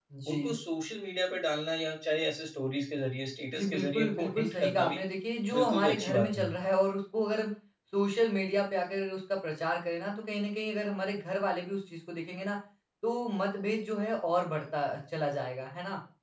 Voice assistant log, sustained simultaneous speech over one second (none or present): present